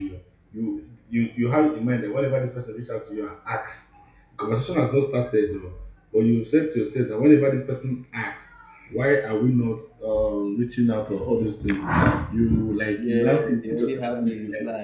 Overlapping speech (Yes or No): Yes